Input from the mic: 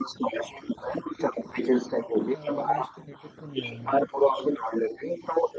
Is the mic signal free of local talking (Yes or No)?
No